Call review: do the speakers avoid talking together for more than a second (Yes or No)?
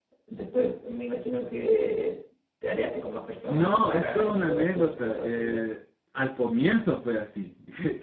No